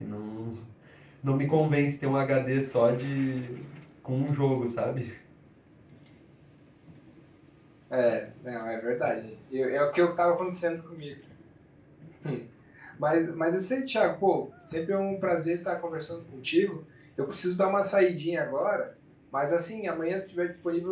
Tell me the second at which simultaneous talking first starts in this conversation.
none

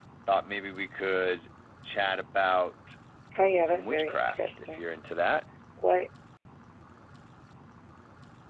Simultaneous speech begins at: 3.7 s

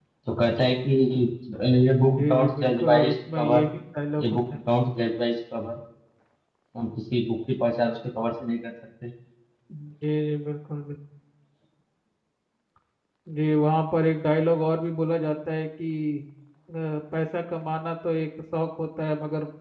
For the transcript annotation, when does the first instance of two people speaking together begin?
2.1 s

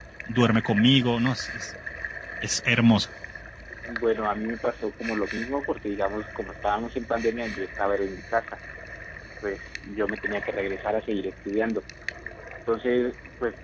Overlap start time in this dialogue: none

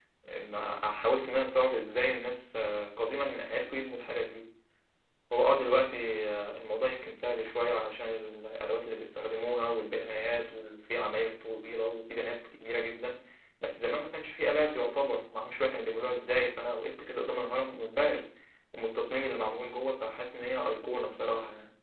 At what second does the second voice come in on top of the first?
none

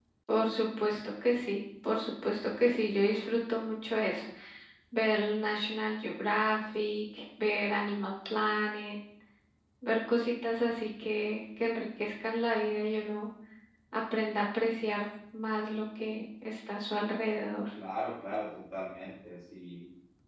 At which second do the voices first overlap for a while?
none

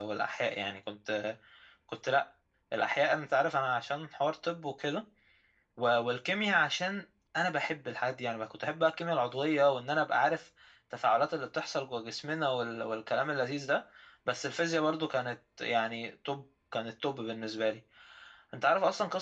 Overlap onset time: none

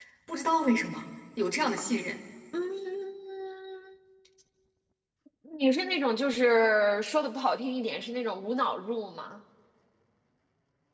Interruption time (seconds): none

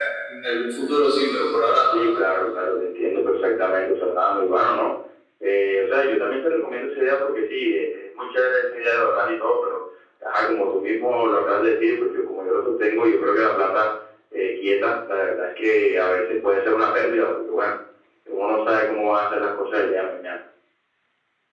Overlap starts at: none

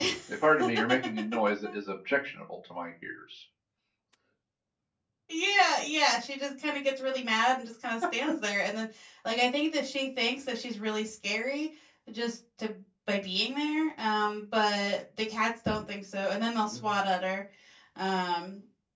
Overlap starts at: none

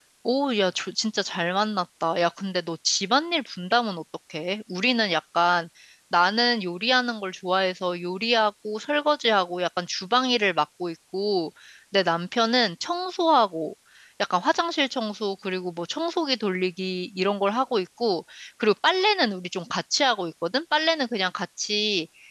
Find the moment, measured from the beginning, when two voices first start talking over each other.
none

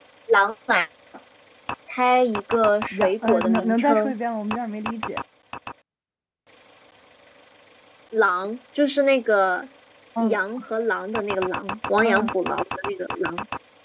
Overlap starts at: 2.9 s

